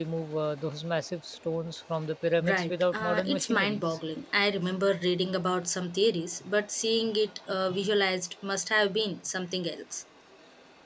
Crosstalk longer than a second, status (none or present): present